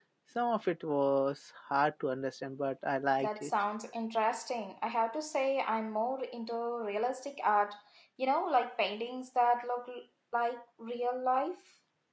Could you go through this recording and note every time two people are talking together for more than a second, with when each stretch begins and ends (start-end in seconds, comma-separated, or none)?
none